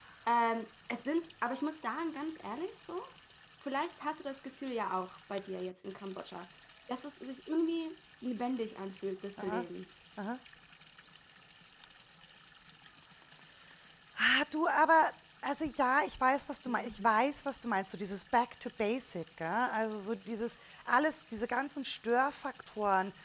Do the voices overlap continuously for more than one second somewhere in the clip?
No

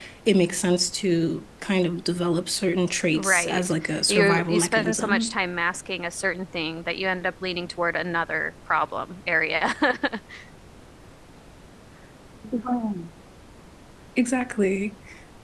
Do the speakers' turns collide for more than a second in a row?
Yes, from 3.1 s

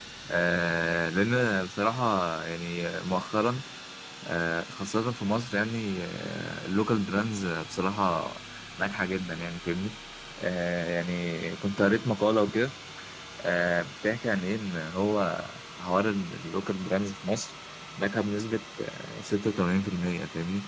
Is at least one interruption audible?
No

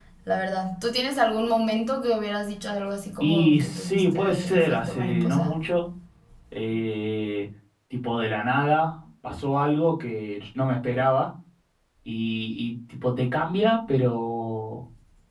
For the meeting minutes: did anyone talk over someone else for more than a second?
Yes, from 3.2 s

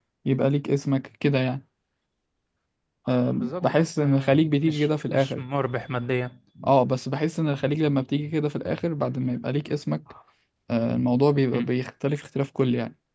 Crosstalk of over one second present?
Yes, from 3.3 s

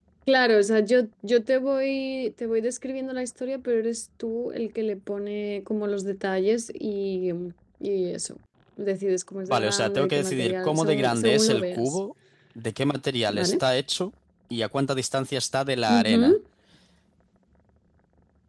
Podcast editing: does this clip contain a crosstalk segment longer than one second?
Yes, from 9.5 s

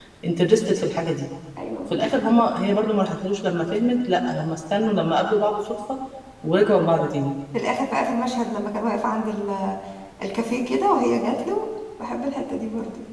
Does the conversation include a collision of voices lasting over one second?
No

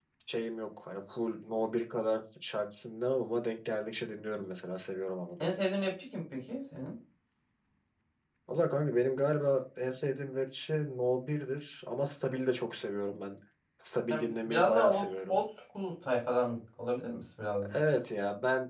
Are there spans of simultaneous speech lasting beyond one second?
Yes, from 14.1 s

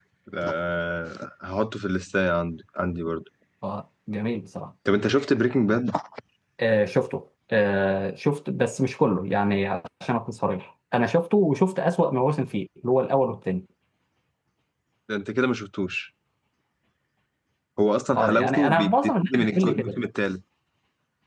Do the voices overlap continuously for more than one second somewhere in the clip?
Yes, from 18.2 s

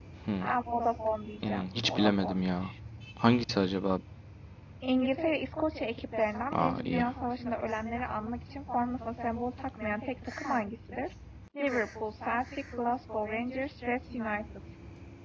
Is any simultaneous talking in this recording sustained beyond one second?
Yes, from 1.4 s

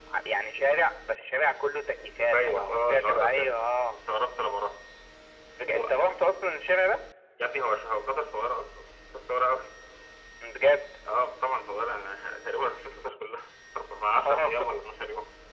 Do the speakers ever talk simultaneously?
Yes, from 2.2 s

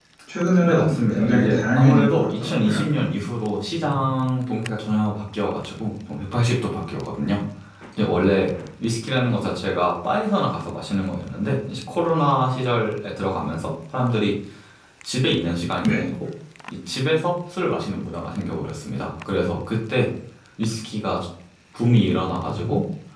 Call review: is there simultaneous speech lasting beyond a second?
Yes, from 0.6 s

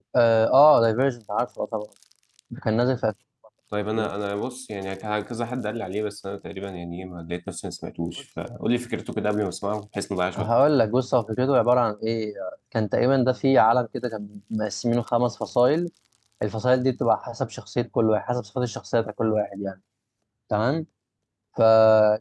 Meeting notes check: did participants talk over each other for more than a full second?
No

